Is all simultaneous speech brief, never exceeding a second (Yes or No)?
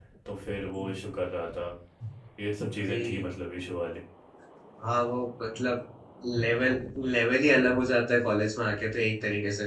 Yes